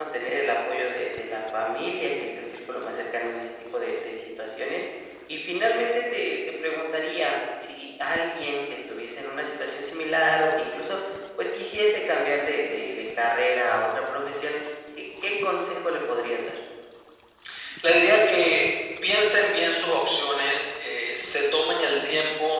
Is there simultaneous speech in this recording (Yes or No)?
No